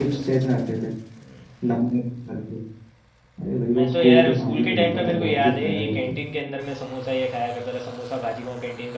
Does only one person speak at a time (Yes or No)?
No